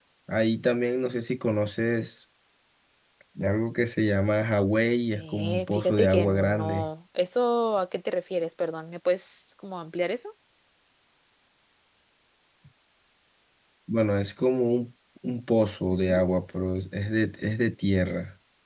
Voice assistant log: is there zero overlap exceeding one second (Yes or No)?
No